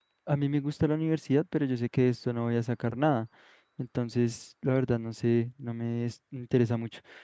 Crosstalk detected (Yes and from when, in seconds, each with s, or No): No